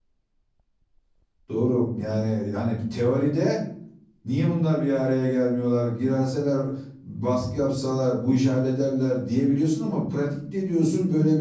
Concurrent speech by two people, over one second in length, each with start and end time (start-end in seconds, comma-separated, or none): none